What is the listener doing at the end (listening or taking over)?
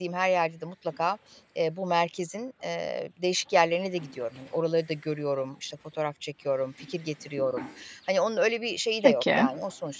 listening